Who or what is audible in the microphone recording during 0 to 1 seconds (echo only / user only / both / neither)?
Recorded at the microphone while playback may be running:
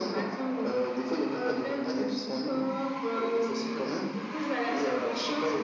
echo only